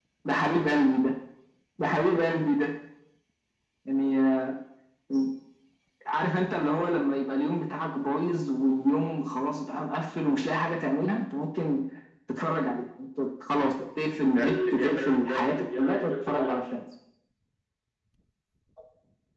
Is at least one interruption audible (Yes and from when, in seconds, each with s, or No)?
Yes, from 14.2 s